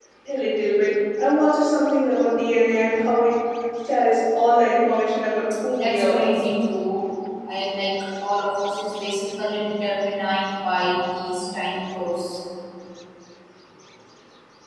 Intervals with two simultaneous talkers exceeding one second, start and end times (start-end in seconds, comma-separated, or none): none